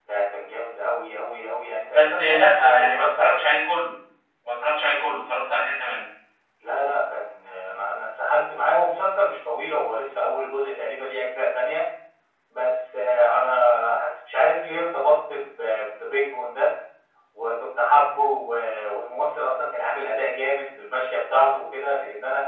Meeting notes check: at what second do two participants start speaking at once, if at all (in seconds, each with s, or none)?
1.9 s